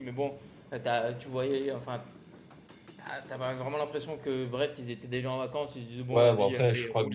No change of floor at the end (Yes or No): No